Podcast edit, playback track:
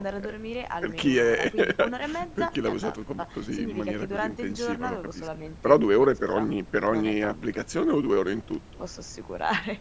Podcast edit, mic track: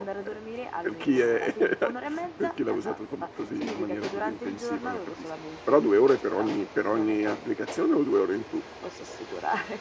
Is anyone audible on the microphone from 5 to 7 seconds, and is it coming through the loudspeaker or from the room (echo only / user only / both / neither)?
echo only